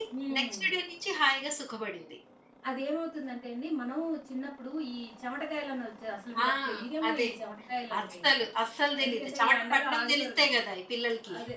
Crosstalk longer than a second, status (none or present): present